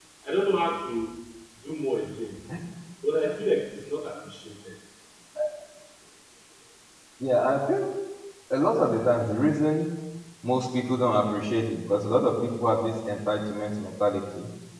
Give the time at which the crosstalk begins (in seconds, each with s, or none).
none